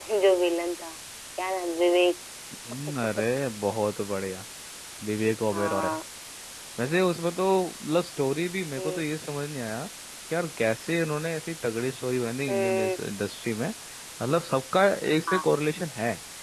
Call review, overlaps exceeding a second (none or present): none